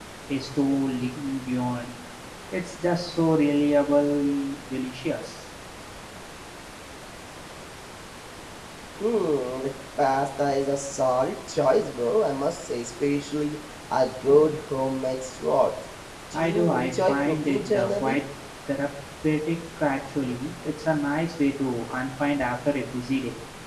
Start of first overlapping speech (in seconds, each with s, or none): 16.3 s